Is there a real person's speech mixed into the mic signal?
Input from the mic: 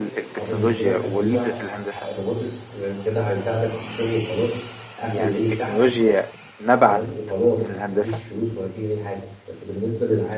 Yes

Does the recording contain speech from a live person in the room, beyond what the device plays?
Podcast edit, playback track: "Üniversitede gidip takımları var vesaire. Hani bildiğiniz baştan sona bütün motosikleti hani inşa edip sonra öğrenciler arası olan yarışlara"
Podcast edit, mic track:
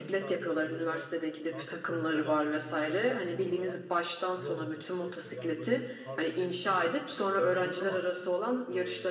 Yes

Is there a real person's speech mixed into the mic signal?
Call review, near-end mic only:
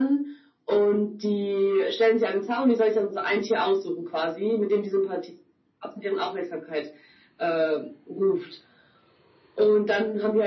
No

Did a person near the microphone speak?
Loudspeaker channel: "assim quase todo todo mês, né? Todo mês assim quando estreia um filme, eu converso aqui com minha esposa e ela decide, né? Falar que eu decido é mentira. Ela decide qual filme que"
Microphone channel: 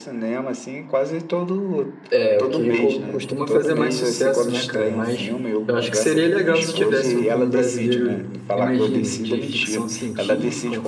Yes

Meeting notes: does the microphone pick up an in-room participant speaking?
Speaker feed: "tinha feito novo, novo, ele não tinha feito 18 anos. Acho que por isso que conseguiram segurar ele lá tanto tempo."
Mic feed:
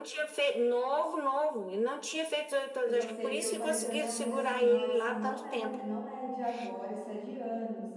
Yes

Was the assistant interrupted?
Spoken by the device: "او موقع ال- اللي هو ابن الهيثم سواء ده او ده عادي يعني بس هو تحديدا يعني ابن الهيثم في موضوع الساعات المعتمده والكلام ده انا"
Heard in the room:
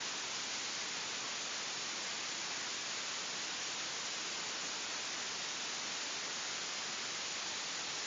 No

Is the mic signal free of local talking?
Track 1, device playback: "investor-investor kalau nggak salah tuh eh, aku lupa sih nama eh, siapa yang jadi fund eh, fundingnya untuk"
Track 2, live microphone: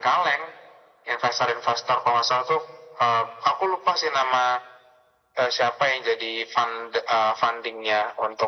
Yes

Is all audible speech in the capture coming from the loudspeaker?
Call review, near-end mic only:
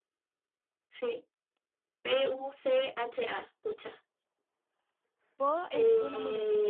No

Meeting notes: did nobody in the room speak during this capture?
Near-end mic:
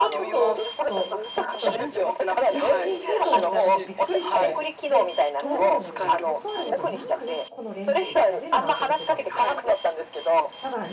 No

